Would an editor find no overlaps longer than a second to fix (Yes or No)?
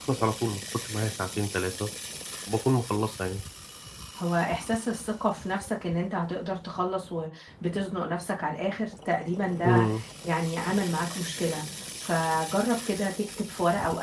Yes